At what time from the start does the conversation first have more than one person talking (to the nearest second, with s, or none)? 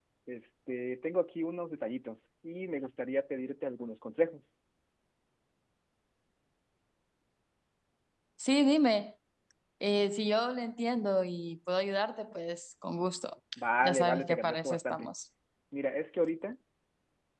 14 s